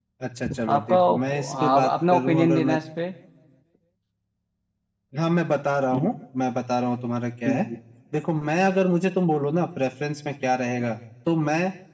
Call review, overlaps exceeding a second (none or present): present